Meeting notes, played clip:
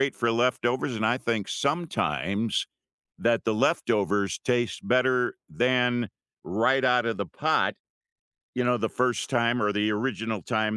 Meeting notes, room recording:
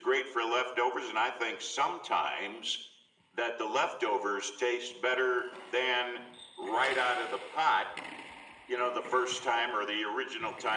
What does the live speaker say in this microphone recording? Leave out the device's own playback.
none

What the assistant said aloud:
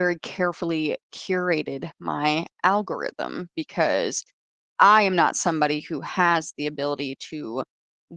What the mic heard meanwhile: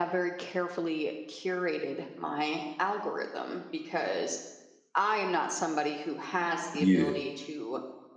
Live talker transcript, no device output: Yeah.

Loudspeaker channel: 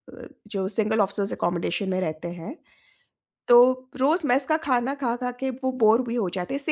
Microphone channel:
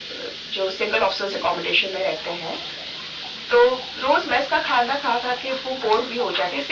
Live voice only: none

